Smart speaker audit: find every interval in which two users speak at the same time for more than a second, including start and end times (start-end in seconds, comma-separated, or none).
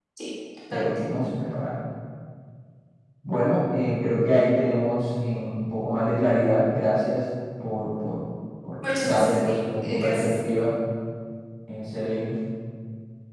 8.8-10.6